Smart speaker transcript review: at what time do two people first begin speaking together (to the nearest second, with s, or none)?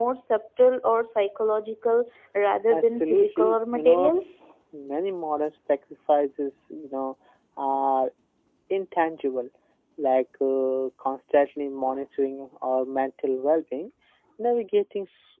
3 s